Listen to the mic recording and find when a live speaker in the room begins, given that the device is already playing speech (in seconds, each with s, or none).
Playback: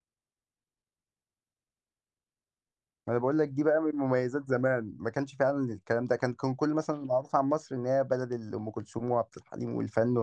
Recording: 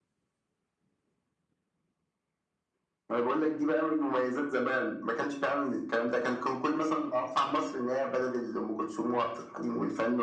none